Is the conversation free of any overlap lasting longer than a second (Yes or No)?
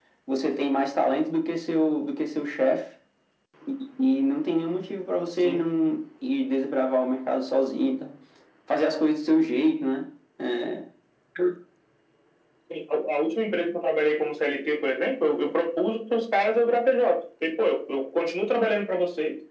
Yes